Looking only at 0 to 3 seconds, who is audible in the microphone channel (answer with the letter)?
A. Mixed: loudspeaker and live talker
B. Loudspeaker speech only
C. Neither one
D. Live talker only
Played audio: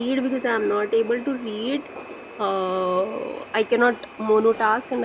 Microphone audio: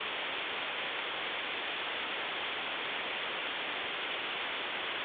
C